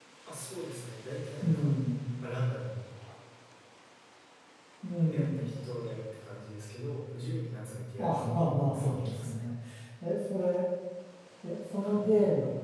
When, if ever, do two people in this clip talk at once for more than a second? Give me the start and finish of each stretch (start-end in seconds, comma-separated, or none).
8.0-9.4